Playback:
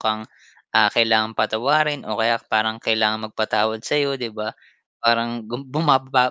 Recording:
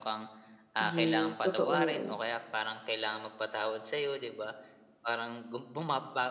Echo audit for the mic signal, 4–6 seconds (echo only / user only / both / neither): echo only